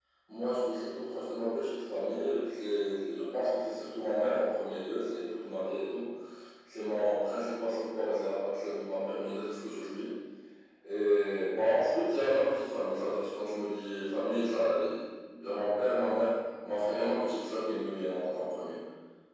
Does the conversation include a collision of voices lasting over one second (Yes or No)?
No